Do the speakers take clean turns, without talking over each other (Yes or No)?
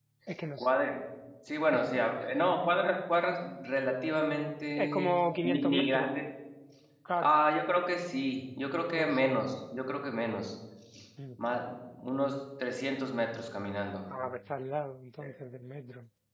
No